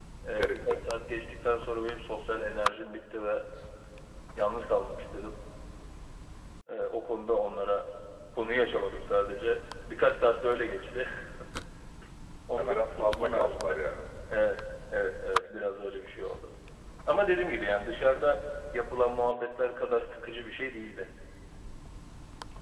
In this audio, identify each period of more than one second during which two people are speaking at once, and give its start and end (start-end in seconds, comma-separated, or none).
12.6-13.8